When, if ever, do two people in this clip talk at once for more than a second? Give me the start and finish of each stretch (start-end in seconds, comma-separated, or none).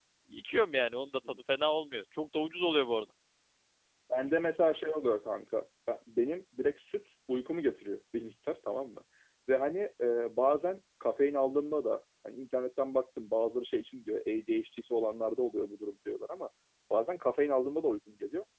none